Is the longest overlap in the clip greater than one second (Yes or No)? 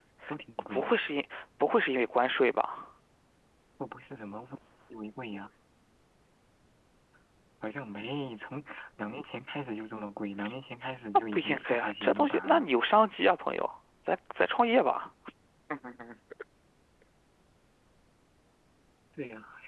Yes